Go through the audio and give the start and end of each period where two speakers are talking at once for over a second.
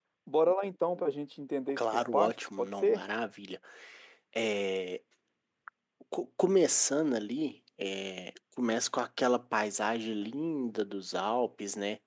1.8-3.0

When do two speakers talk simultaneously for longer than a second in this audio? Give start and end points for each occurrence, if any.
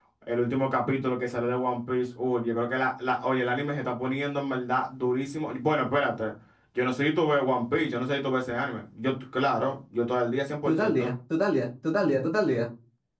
none

